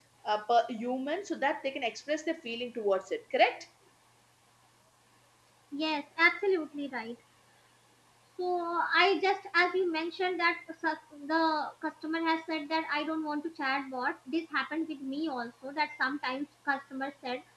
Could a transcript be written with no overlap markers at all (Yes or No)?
Yes